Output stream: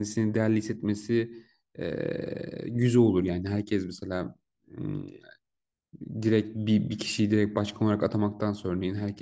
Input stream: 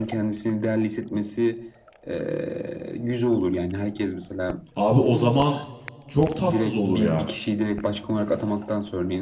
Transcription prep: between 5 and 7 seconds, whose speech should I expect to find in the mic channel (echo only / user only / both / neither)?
both